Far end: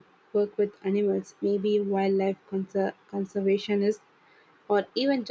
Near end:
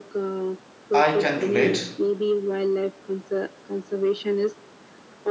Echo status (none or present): present